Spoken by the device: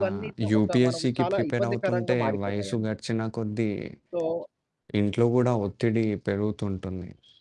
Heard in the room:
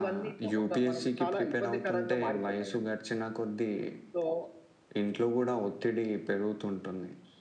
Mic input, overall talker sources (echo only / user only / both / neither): echo only